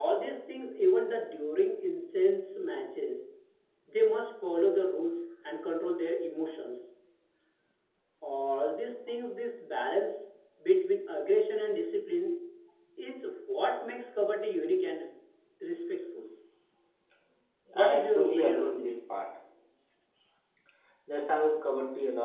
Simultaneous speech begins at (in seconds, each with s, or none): 17.8 s